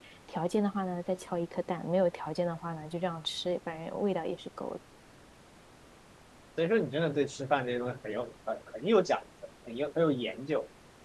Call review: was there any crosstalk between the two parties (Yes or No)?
No